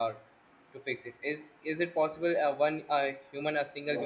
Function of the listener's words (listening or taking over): listening